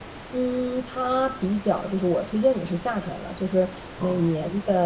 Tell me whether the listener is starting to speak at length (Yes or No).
No